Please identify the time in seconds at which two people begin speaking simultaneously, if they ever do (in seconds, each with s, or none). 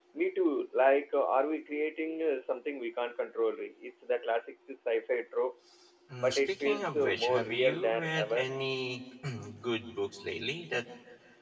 6.2 s